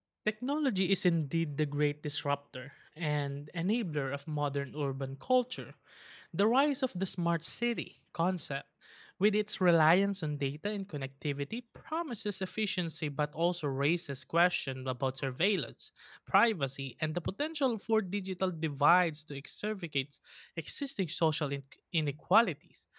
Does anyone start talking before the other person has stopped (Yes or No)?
No